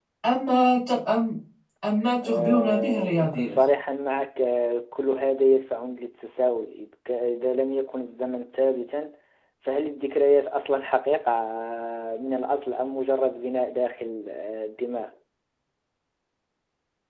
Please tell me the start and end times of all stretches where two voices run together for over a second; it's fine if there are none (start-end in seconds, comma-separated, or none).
2.2-3.6